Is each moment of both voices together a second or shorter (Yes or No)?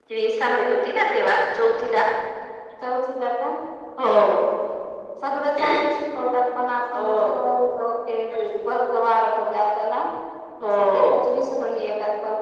Yes